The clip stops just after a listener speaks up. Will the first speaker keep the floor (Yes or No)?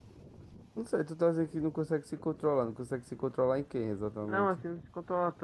No